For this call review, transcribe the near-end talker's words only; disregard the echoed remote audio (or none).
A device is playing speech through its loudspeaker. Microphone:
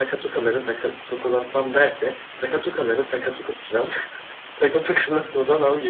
none